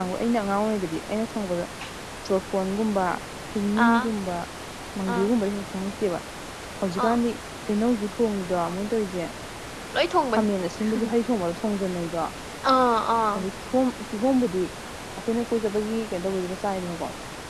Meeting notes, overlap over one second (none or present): none